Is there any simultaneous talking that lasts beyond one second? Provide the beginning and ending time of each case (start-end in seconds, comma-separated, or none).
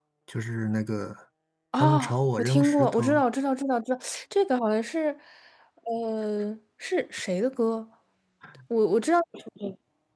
1.8-3.2